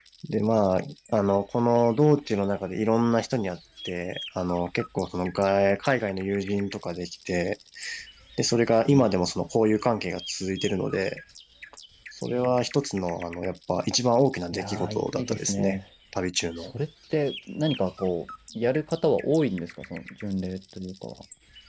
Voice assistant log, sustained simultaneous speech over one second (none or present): present